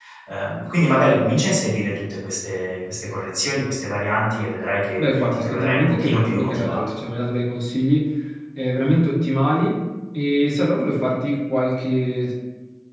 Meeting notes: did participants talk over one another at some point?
Yes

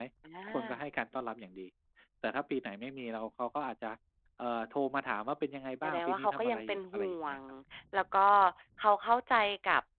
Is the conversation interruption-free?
No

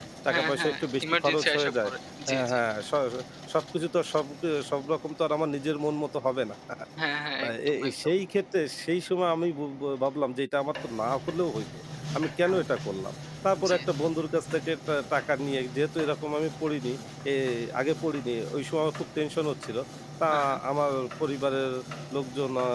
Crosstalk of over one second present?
Yes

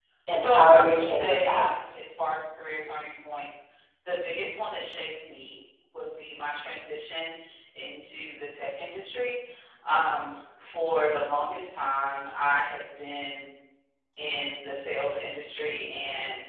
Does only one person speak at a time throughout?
No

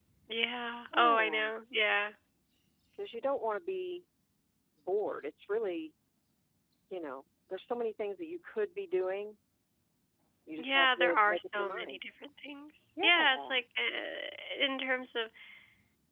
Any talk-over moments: Yes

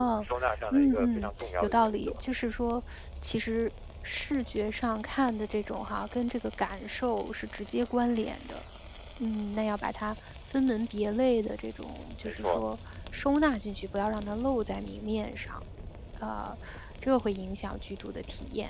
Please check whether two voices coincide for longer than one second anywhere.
Yes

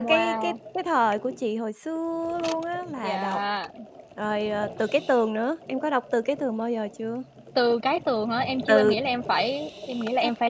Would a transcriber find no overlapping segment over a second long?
Yes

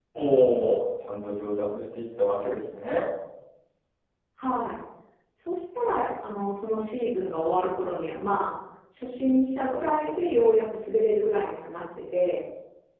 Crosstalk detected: No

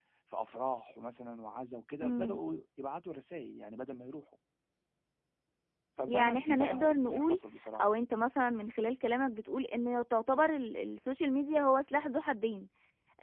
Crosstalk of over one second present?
Yes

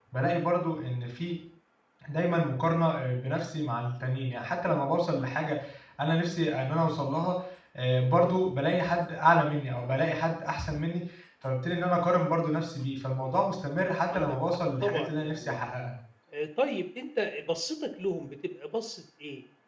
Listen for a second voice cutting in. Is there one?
Yes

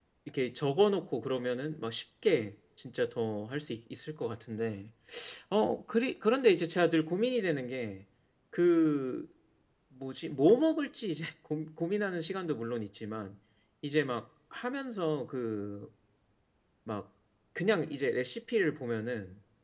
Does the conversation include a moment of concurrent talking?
No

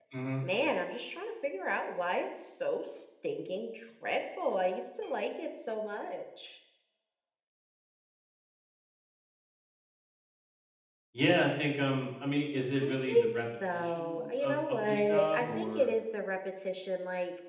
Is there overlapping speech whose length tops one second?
Yes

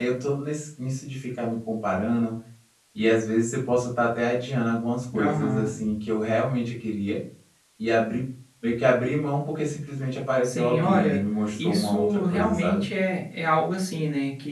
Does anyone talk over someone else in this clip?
Yes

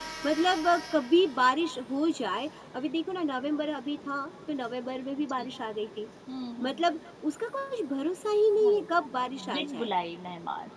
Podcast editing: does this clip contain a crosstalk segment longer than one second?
Yes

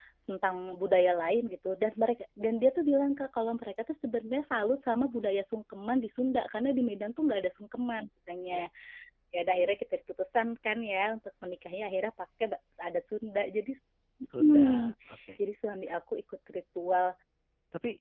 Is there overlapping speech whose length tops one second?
No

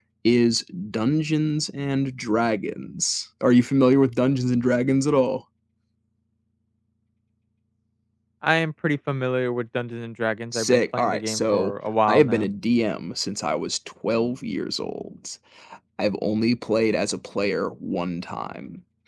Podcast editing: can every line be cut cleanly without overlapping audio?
No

